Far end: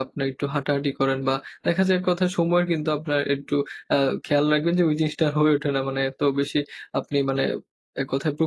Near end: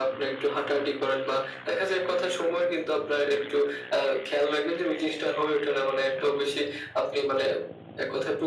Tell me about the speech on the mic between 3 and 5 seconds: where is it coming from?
echo only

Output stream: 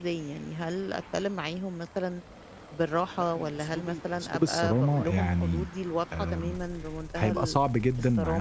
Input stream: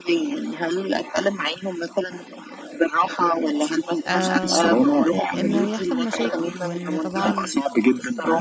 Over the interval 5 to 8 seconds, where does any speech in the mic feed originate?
both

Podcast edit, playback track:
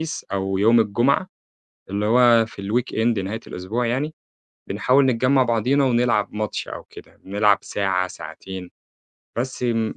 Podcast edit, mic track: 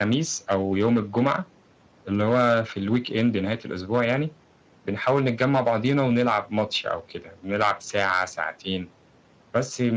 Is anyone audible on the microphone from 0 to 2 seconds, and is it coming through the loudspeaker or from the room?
echo only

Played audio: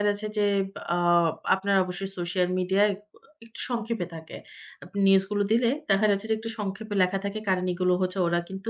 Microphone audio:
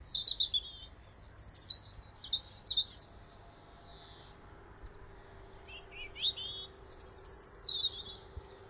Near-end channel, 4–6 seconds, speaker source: neither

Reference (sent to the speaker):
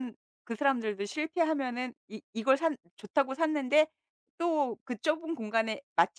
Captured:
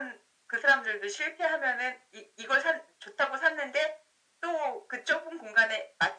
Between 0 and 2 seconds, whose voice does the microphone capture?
echo only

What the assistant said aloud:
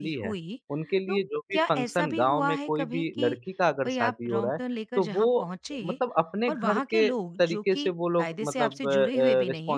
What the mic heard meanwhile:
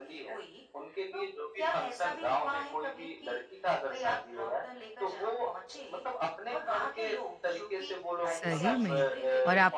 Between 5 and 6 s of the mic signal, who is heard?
echo only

